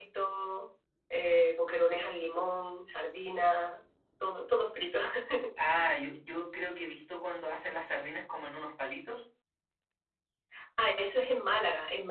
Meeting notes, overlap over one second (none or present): none